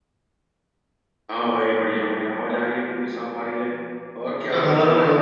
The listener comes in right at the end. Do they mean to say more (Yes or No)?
Yes